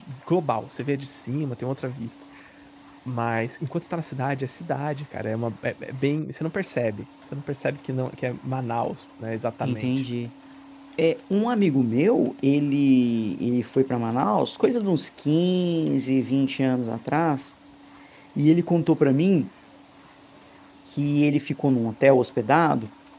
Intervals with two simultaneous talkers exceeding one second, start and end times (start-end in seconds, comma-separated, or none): none